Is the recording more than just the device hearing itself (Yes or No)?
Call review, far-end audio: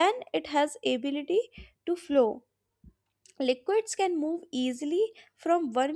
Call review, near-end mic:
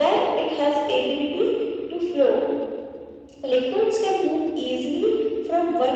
No